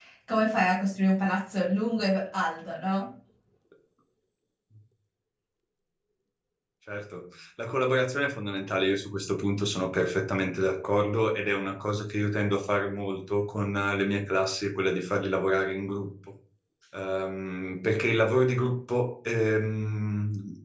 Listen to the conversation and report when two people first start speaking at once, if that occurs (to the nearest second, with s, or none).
none